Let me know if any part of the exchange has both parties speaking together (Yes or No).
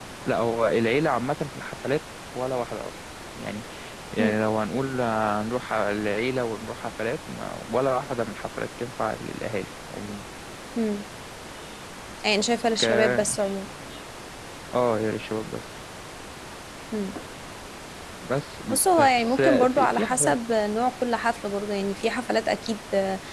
Yes